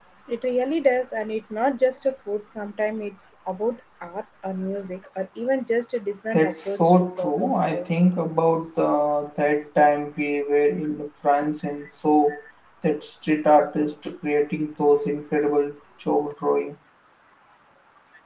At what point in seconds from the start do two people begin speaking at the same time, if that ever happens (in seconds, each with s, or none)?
6.3 s